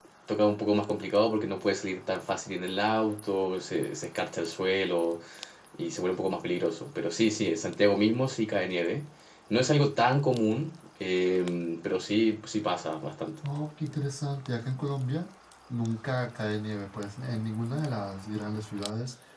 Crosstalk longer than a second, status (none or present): none